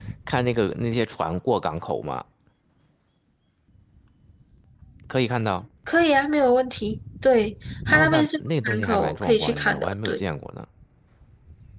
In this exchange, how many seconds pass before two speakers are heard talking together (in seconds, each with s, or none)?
7.9 s